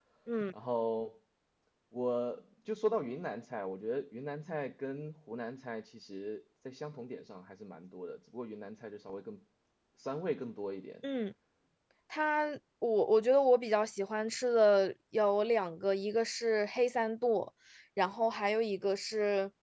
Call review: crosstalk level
none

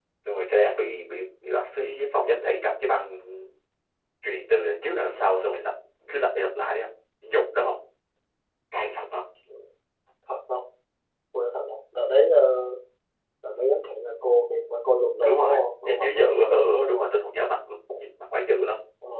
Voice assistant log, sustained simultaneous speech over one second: present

